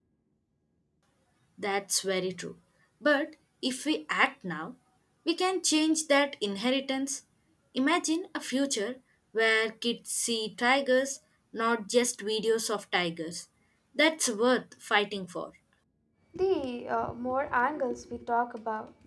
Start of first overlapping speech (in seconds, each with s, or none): none